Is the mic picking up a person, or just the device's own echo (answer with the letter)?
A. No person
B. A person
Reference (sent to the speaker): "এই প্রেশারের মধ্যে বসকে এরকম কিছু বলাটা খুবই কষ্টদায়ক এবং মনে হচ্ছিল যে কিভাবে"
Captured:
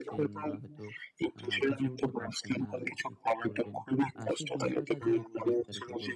B